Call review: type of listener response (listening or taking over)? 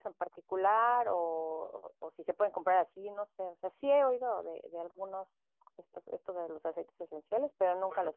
taking over